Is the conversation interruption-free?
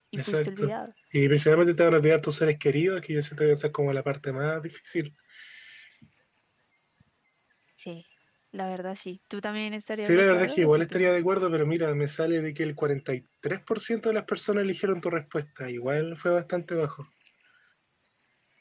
No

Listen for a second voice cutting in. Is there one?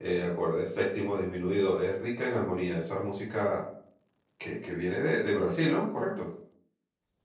No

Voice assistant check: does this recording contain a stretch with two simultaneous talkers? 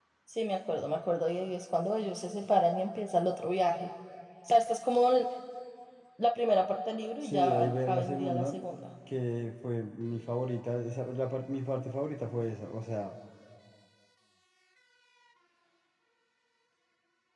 Yes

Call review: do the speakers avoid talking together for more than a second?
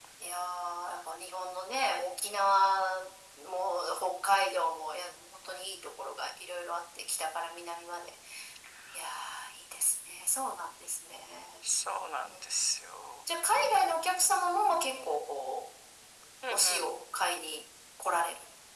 Yes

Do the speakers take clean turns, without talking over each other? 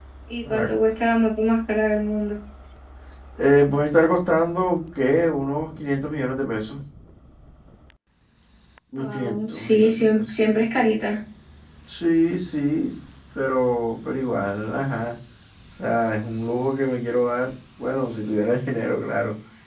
No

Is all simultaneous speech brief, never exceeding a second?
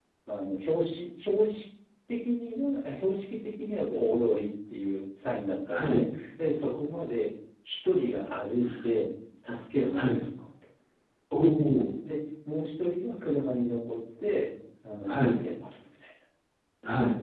Yes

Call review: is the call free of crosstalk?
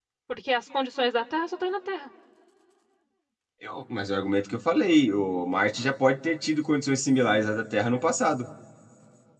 Yes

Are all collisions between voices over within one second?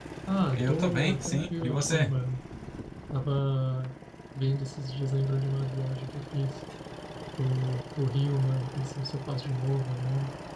No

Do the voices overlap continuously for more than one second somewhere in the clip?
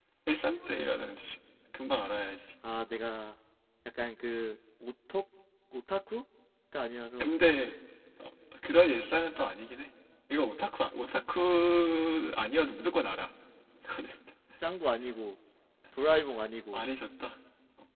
No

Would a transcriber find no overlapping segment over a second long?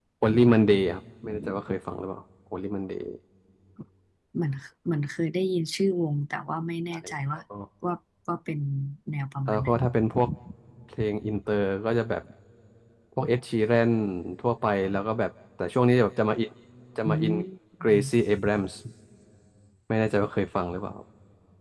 Yes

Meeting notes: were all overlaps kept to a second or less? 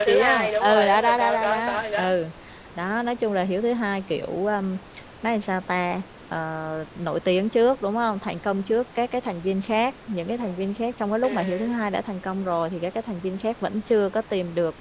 No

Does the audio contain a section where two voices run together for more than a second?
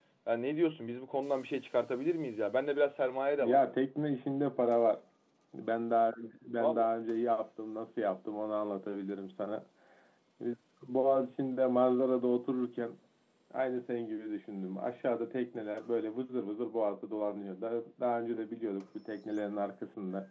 No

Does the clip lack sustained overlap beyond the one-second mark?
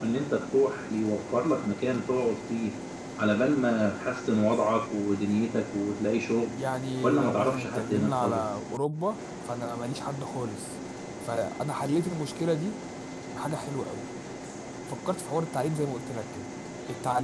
No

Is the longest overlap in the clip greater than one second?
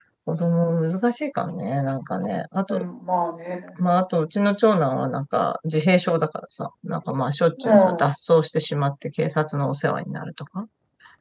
No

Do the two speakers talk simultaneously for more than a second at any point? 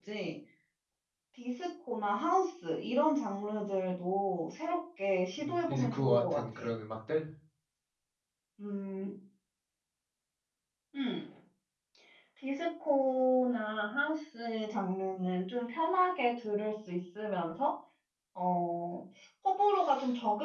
Yes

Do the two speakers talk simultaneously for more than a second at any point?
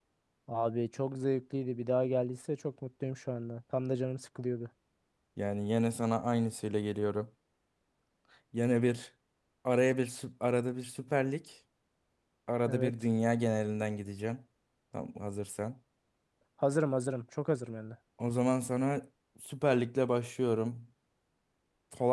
No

